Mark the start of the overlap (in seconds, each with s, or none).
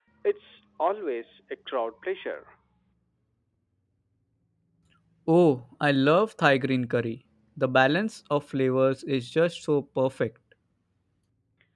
none